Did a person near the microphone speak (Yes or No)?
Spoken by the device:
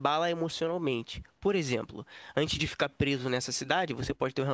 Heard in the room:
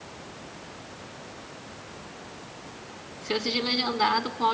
Yes